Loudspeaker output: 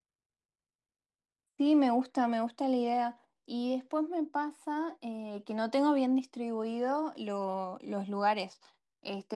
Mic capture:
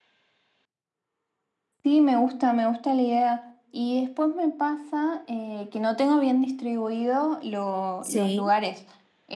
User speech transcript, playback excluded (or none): Sí.